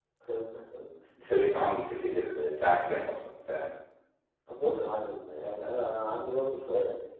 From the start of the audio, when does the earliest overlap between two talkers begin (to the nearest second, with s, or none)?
none